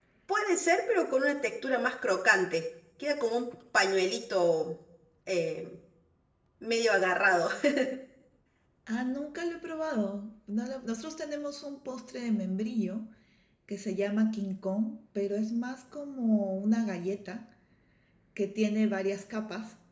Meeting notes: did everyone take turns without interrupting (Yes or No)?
Yes